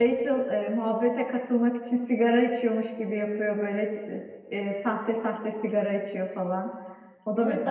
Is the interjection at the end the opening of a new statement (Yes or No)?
Yes